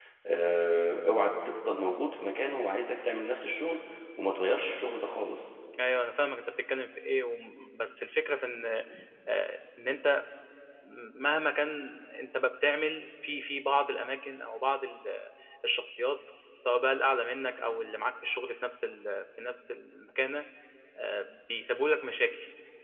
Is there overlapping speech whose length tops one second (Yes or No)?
No